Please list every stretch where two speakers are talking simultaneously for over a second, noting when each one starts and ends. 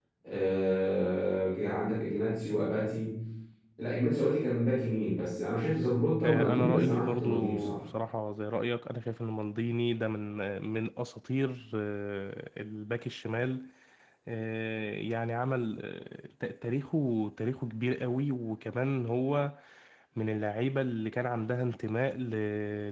6.2-7.8

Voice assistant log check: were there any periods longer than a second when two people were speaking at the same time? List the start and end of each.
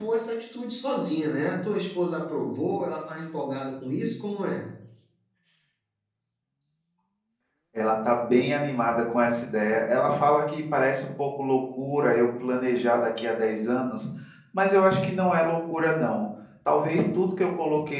none

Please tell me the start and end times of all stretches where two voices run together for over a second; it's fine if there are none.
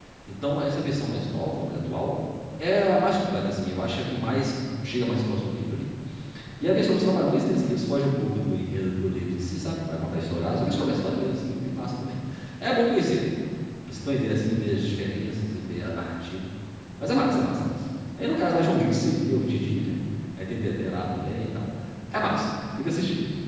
none

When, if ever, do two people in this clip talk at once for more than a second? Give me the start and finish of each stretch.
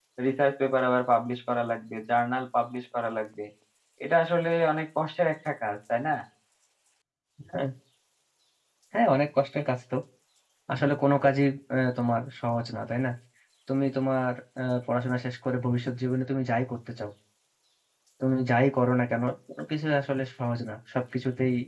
none

